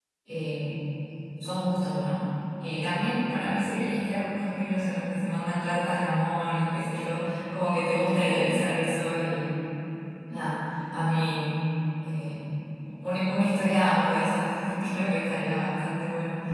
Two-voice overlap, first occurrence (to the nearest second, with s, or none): none